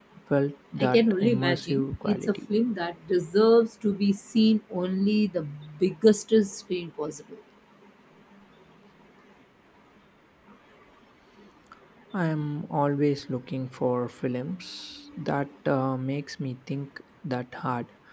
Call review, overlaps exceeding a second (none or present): present